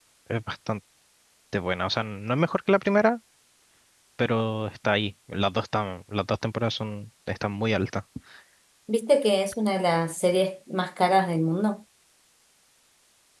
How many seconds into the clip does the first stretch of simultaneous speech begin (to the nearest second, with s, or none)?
none